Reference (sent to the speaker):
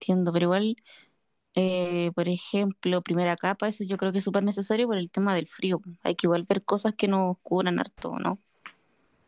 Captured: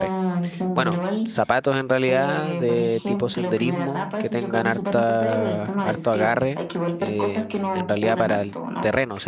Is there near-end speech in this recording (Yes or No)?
Yes